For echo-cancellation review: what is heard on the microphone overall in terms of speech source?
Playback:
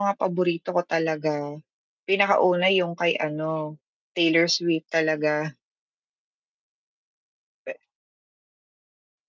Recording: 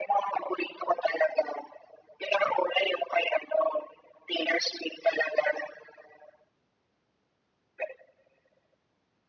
echo only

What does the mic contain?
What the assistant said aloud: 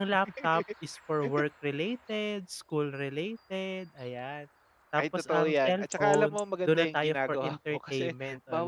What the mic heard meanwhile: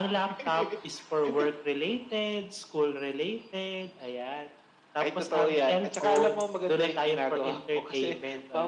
echo only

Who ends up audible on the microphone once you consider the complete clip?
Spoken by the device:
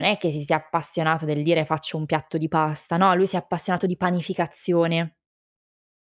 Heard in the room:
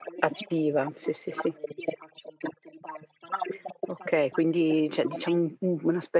both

